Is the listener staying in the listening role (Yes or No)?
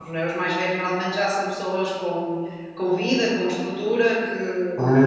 No